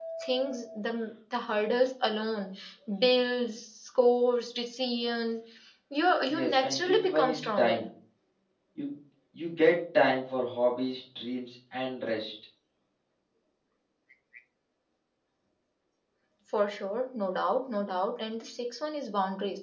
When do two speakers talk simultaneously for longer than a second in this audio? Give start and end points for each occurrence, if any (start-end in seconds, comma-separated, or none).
6.3-7.8